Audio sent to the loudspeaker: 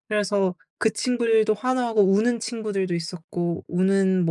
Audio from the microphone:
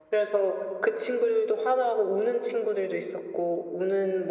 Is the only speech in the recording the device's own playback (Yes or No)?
Yes